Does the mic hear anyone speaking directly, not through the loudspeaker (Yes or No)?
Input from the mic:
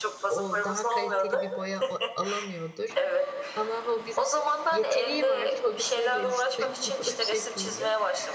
Yes